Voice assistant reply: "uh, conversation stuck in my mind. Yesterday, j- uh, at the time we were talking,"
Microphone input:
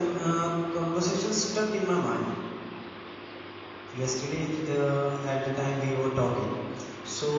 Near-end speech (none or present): none